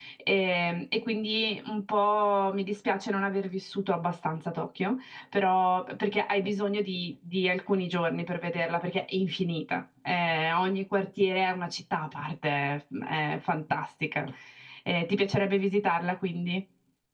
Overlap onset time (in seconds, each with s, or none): none